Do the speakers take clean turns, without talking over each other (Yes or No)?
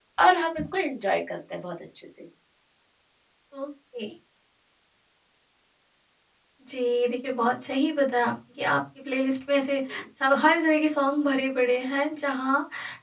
Yes